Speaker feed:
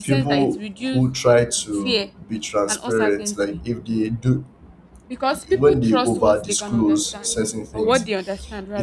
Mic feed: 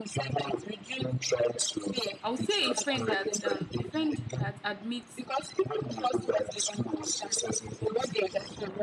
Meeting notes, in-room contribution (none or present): present